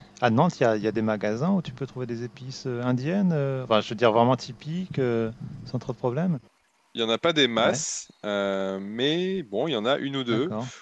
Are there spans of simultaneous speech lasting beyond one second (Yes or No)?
No